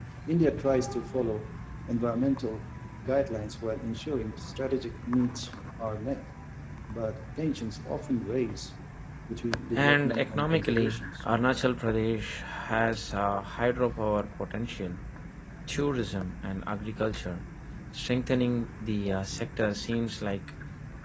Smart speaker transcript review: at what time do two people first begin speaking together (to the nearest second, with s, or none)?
10 s